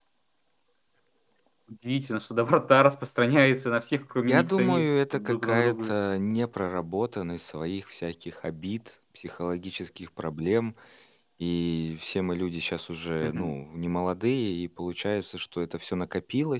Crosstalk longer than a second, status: present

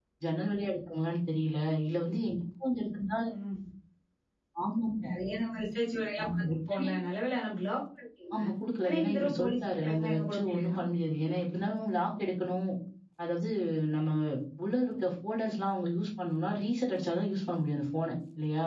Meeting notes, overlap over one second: present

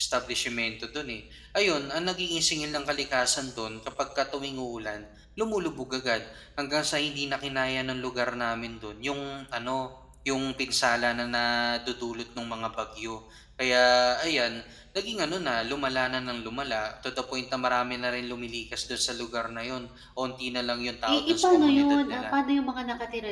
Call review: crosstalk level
present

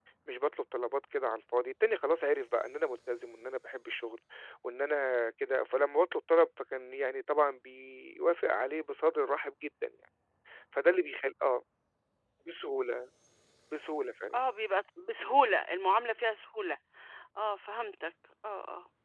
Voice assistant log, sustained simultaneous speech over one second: none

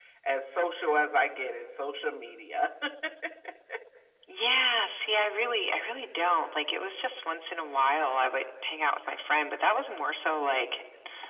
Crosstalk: none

